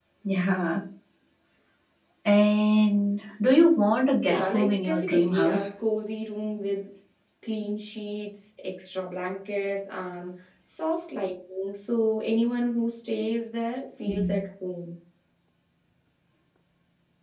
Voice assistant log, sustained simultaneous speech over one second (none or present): present